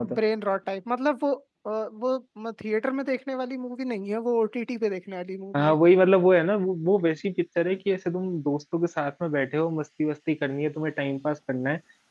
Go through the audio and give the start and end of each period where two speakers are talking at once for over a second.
none

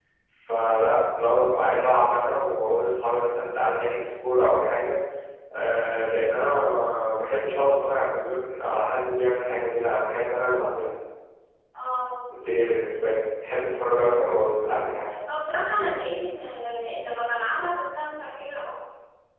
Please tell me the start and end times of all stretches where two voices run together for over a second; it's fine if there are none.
none

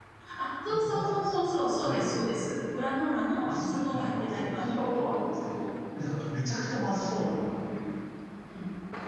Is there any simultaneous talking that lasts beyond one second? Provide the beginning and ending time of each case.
3.4-4.8

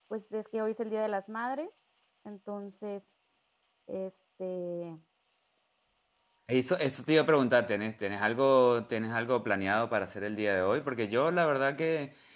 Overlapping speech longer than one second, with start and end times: none

